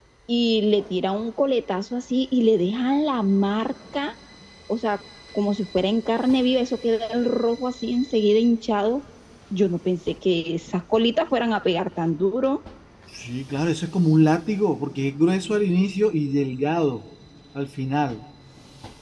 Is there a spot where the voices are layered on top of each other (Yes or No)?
No